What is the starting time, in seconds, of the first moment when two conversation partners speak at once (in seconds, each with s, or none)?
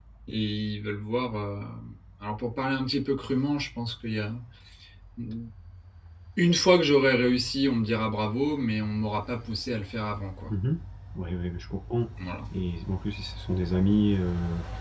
none